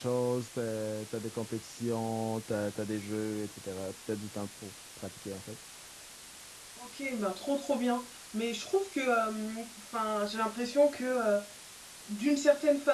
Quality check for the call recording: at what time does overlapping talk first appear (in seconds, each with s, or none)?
none